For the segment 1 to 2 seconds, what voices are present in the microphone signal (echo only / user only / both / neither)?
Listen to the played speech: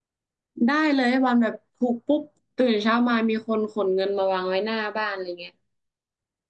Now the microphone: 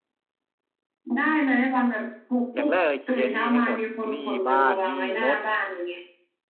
echo only